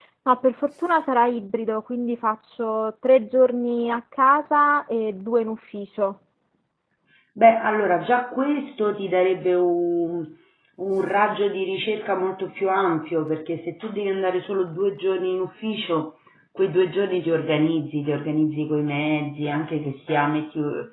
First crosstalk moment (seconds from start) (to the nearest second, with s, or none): none